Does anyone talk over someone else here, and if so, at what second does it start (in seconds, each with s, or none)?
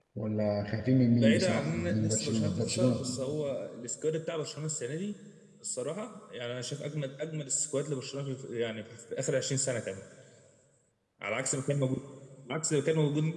1.2 s